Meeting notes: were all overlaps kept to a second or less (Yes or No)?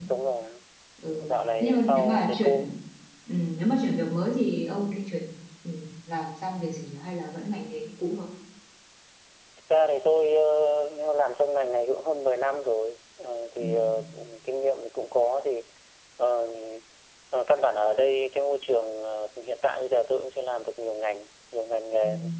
No